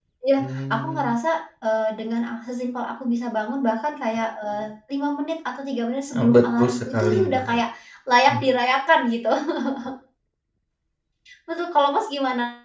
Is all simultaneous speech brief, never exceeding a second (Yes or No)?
No